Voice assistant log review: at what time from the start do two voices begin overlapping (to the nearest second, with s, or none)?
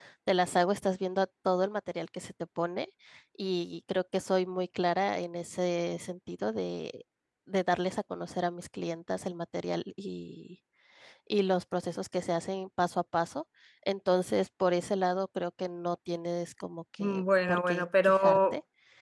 17 s